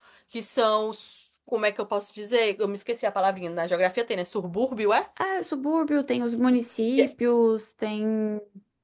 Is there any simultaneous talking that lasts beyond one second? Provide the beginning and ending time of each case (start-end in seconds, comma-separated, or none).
none